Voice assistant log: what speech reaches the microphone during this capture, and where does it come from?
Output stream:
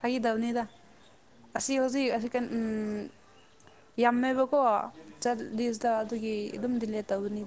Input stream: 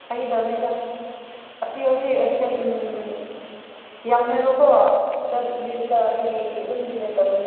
echo only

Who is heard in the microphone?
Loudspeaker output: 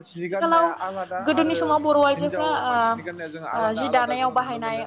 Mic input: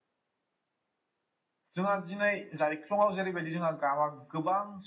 user only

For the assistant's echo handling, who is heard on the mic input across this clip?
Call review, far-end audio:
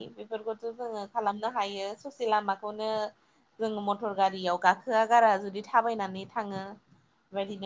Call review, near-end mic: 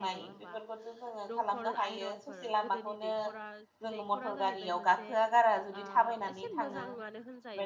both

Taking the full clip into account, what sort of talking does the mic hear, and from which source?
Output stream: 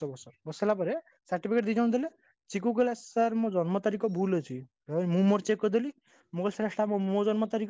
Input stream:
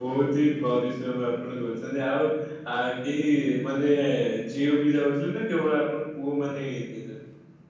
user only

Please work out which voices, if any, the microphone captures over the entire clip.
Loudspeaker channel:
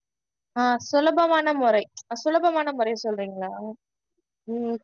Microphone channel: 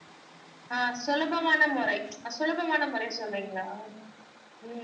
echo only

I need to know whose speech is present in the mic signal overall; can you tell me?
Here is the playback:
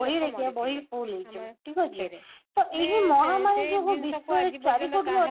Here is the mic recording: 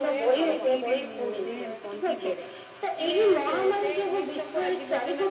both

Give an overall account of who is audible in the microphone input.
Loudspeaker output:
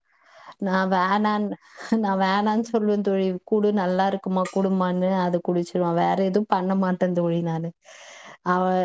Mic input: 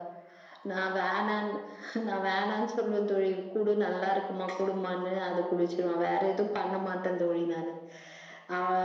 both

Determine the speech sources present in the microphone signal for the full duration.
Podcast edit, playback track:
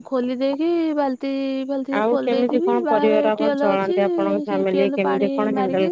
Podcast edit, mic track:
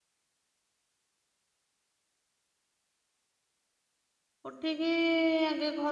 user only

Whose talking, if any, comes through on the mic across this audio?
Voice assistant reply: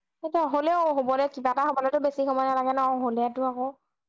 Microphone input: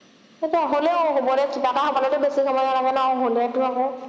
echo only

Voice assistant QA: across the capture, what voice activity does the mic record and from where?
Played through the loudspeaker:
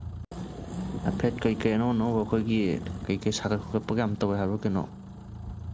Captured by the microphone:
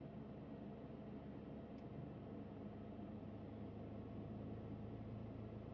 neither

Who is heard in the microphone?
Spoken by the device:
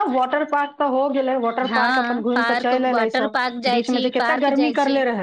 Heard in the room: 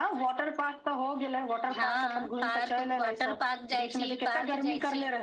echo only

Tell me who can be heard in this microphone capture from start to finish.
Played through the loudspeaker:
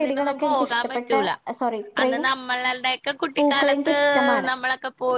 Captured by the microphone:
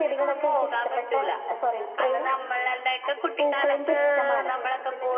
both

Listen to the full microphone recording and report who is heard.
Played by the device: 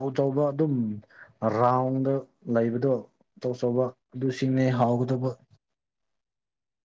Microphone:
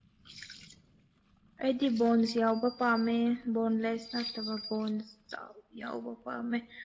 user only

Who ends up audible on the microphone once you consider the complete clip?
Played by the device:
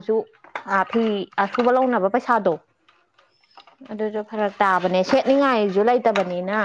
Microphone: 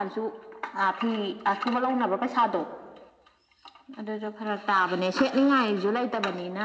echo only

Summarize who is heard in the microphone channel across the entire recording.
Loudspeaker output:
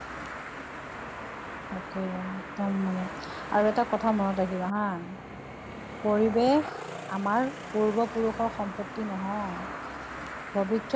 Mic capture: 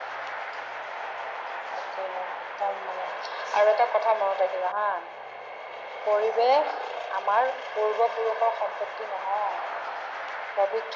echo only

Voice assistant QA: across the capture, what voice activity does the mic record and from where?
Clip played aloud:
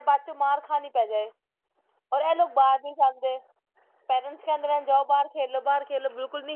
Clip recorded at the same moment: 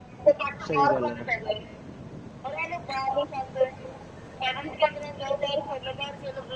both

